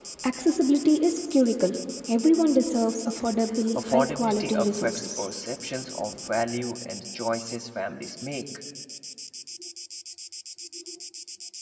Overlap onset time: 3.8 s

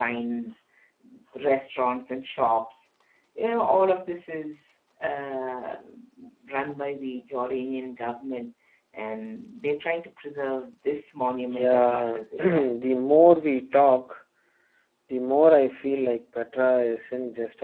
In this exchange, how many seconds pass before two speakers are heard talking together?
11.5 s

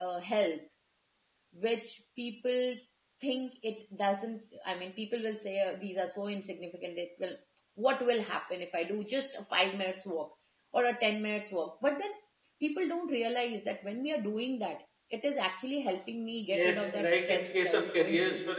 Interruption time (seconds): 16.5 s

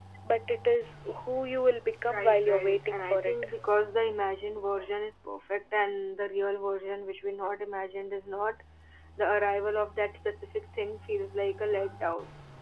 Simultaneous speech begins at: 2.1 s

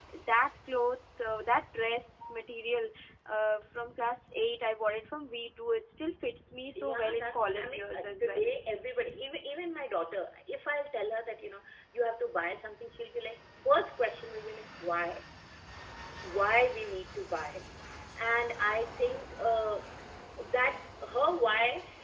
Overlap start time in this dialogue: 6.8 s

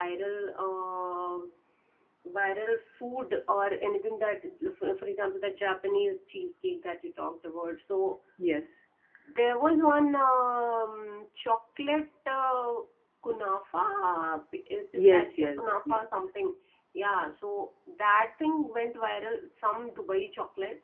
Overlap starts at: 14.9 s

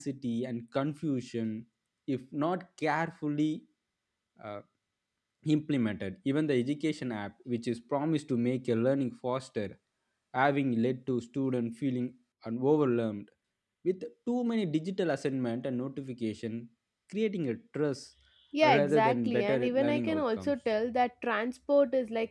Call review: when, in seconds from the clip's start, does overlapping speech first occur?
18.6 s

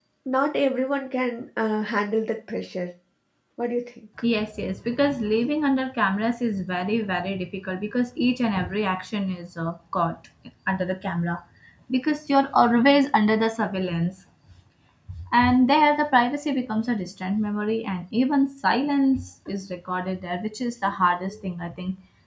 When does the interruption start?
none

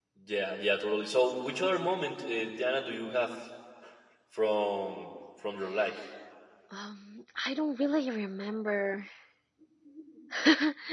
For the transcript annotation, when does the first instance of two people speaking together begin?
none

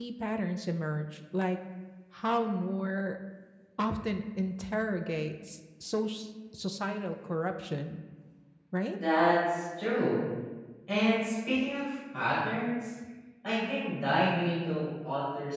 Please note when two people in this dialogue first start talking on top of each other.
none

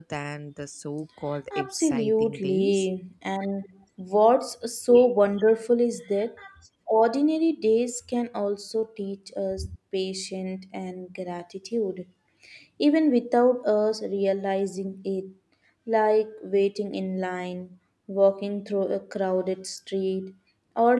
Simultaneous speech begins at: 1.5 s

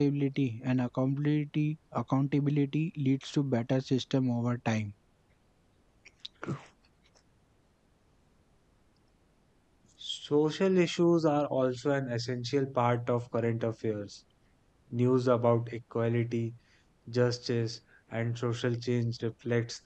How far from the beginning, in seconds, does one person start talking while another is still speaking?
none

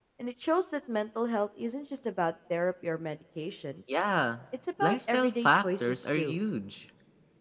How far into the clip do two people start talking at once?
4.8 s

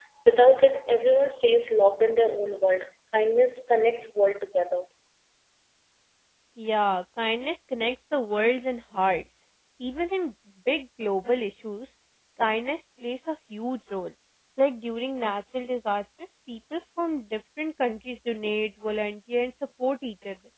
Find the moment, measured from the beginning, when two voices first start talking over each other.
none

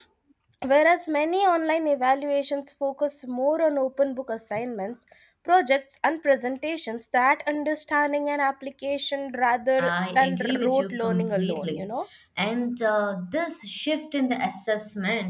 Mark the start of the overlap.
9.8 s

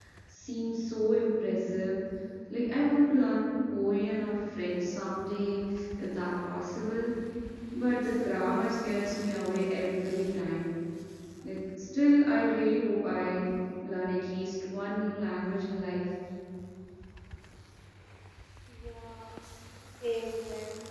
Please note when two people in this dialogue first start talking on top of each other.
none

